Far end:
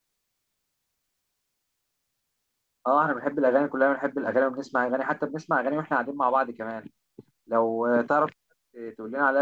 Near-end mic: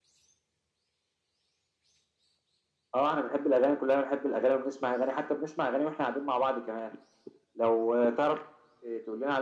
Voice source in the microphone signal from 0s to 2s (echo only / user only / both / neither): neither